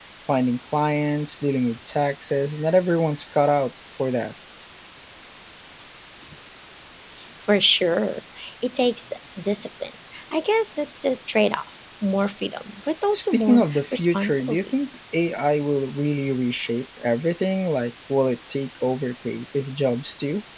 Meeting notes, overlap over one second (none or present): present